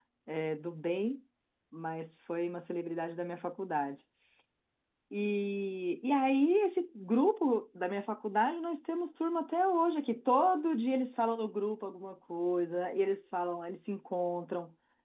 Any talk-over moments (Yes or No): No